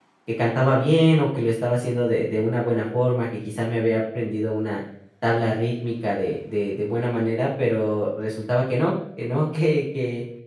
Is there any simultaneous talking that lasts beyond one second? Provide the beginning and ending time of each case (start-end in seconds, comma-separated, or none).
none